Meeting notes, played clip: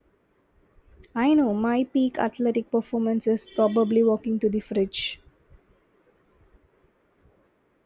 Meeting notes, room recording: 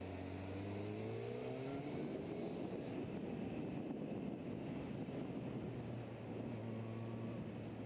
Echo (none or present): none